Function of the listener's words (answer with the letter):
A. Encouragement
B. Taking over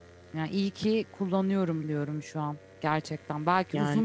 A